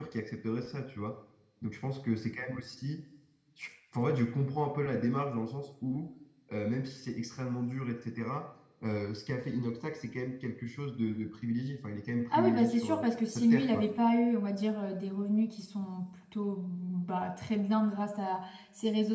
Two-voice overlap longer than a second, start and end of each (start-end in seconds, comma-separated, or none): 12.3-13.8